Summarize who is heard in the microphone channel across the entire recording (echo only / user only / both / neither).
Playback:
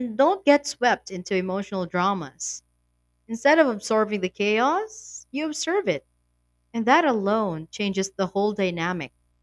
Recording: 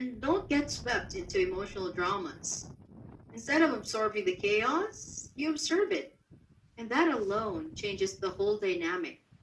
echo only